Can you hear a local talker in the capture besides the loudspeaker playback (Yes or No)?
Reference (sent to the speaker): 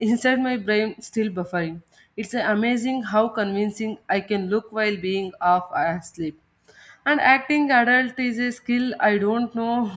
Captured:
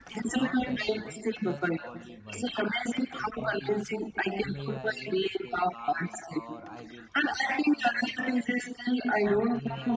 Yes